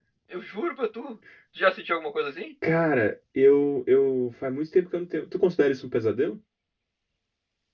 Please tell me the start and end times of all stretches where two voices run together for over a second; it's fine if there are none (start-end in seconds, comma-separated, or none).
none